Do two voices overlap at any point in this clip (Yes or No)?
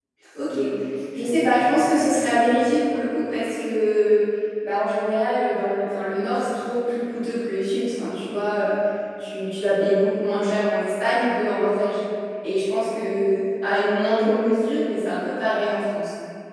Yes